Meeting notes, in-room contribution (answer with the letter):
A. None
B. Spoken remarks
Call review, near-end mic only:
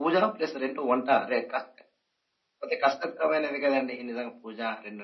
A